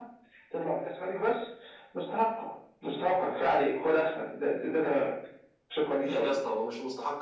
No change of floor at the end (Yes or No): No